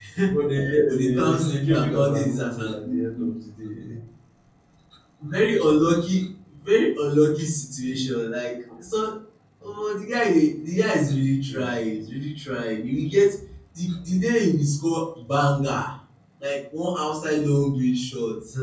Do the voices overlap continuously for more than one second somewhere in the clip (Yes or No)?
Yes